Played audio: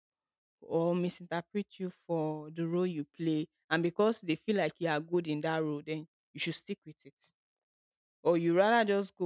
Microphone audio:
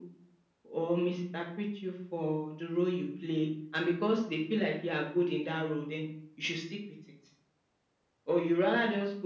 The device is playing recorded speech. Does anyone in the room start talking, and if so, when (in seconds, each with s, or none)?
none